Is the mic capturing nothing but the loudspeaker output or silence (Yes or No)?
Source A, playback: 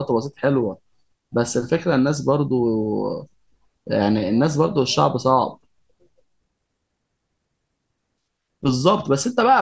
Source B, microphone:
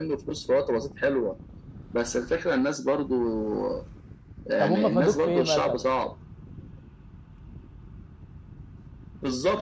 No